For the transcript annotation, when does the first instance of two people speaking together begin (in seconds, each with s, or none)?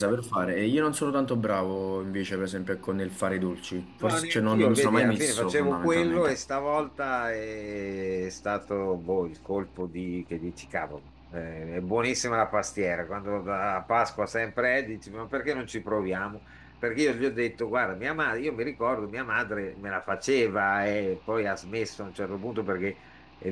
4.0 s